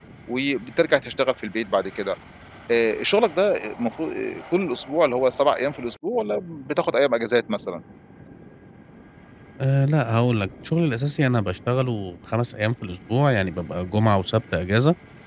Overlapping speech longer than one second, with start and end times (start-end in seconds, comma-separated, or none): none